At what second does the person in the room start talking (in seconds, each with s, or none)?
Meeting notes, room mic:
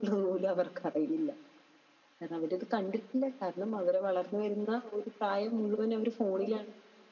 none